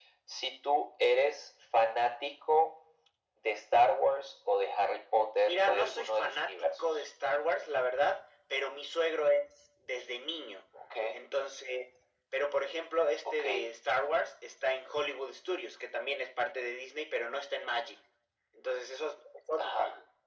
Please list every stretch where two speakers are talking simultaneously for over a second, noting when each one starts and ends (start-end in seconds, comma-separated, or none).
5.4-7.0